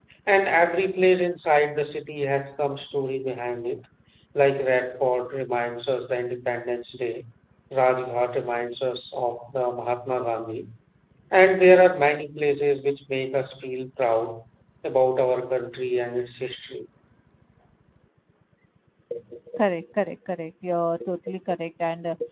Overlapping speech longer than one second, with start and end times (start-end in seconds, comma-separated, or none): none